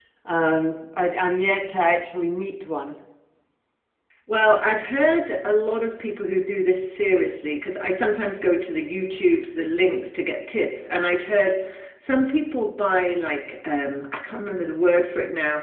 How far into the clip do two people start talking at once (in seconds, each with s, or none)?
none